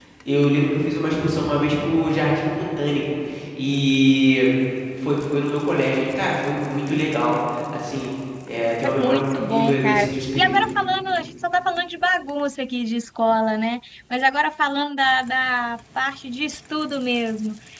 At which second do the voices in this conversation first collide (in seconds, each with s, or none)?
8.8 s